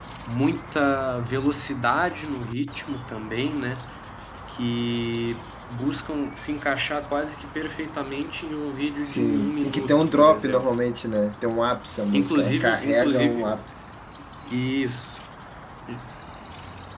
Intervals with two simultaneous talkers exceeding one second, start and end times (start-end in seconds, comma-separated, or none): 9.0-10.7, 12.1-13.5